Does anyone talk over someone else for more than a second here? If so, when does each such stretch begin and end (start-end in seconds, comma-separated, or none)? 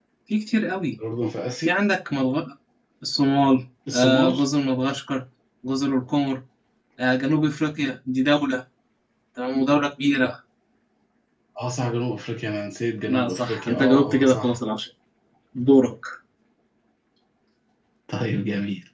13.1-14.6